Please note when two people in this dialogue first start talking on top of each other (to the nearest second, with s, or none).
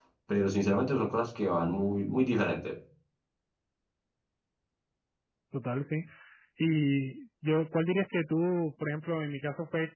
none